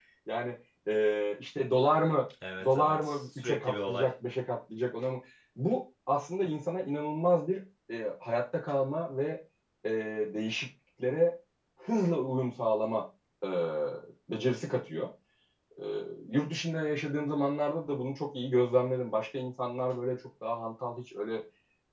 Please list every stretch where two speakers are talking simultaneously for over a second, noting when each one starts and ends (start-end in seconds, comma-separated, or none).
2.6-4.1